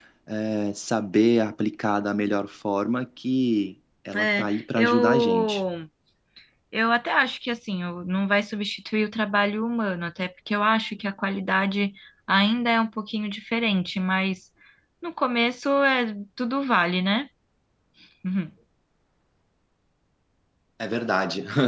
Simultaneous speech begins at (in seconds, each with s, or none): 4.1 s